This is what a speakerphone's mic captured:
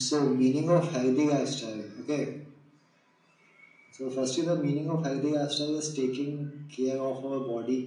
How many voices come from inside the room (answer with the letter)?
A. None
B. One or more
A